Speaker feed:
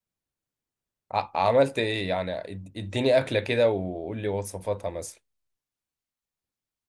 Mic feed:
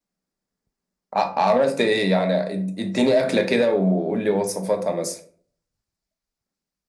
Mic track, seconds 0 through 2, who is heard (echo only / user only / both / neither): echo only